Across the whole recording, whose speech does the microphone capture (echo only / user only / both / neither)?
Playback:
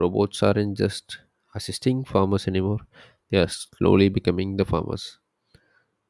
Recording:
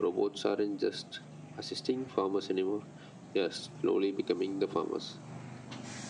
echo only